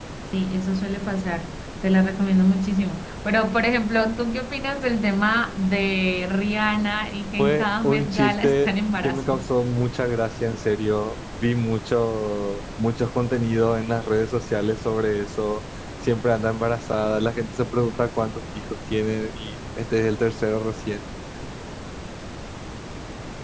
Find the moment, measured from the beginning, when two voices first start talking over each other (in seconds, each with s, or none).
7.4 s